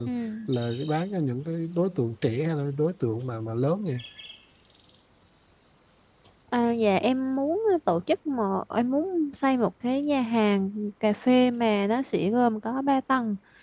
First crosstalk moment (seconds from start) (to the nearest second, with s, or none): none